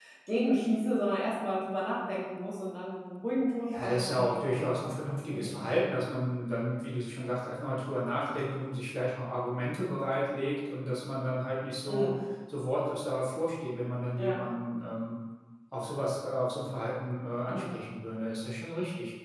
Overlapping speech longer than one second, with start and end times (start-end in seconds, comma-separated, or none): 3.7-5.5